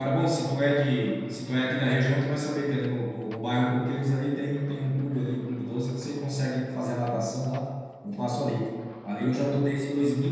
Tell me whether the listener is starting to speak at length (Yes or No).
No